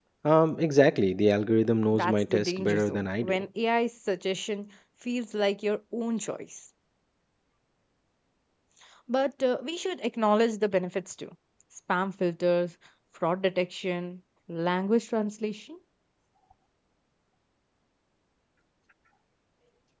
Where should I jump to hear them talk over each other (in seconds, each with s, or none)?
1.9 s